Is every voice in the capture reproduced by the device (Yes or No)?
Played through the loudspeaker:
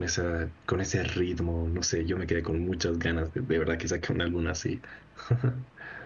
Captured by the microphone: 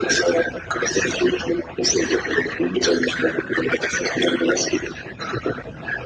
Yes